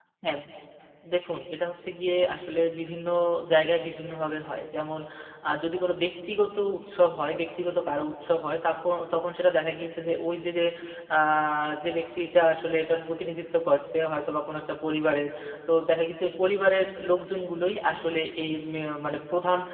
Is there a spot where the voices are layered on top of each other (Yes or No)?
No